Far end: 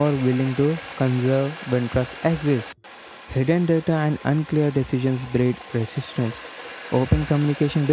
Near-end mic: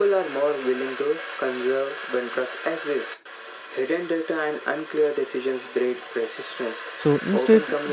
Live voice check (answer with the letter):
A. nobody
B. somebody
B